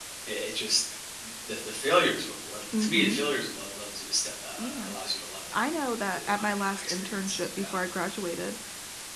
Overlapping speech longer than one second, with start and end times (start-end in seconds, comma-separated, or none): 6.1-7.7